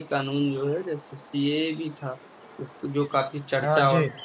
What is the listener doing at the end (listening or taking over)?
listening